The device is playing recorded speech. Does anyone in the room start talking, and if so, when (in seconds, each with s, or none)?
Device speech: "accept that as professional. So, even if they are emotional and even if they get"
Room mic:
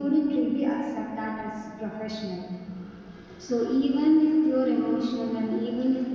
none